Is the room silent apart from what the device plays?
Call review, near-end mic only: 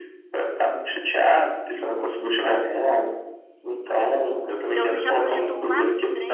No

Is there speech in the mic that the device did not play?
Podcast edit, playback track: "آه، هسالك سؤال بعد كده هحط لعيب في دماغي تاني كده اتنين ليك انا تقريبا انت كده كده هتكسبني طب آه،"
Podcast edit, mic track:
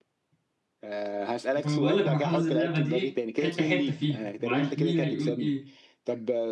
Yes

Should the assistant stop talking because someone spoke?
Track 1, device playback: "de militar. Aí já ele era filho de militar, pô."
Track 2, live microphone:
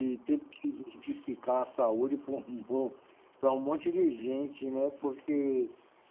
Yes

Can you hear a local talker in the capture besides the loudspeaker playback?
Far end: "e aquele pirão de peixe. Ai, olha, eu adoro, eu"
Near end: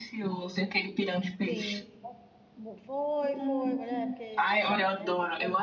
Yes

